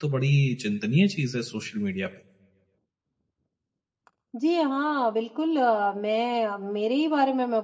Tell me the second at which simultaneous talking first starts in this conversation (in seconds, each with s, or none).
none